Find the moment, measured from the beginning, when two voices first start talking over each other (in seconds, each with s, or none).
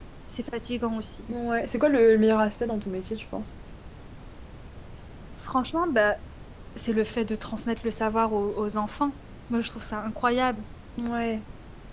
none